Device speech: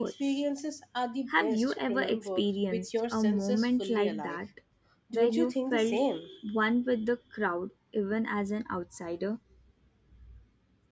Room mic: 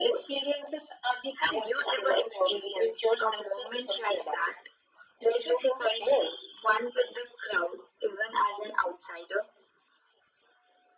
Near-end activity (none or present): none